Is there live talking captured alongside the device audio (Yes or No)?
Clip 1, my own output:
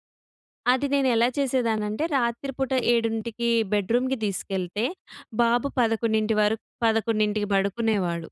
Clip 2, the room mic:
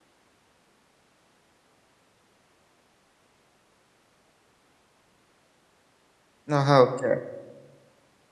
Yes